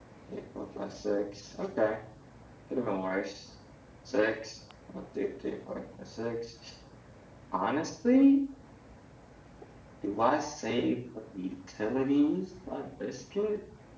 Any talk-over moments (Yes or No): No